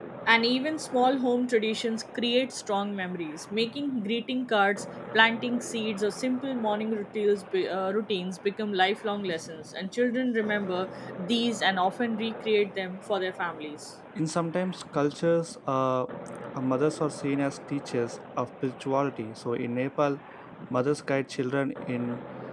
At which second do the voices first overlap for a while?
none

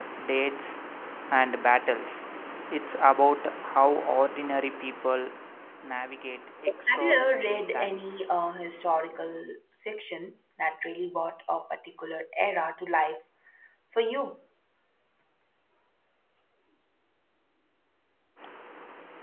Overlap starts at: 7 s

